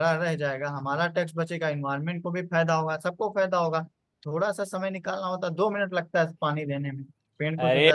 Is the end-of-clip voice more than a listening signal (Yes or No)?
Yes